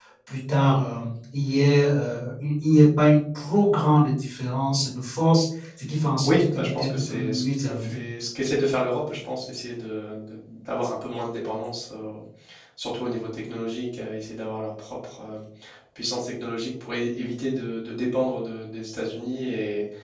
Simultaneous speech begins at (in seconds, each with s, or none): 6.2 s